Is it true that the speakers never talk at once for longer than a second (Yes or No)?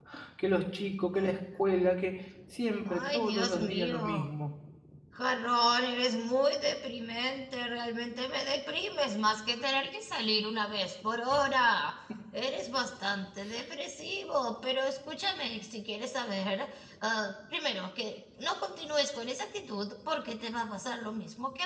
No